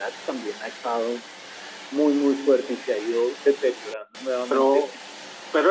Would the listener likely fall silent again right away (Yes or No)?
No